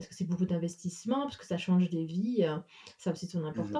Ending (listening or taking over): taking over